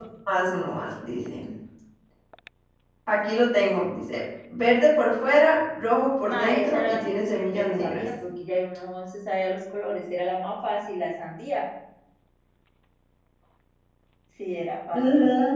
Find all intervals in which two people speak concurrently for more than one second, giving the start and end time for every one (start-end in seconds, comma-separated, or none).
6.3-8.0